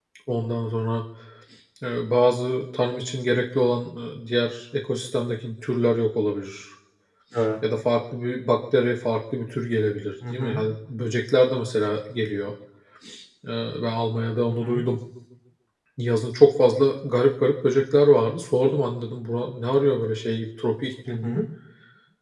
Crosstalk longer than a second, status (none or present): none